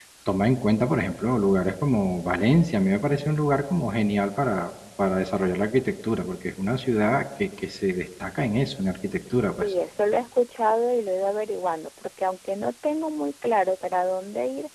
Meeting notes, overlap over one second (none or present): none